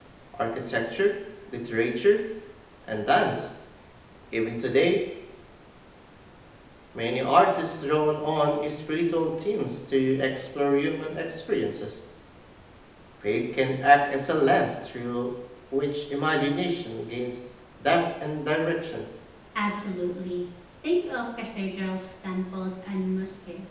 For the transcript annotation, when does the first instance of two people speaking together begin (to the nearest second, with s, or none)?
none